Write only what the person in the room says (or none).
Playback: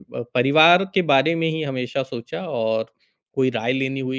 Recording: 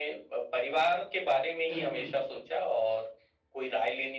बिल्कुल।